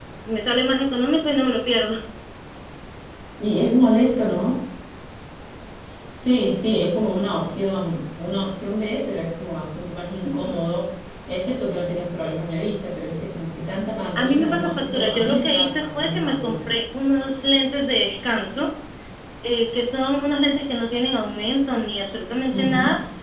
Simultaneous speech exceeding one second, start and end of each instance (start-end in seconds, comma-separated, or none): 14.2-16.6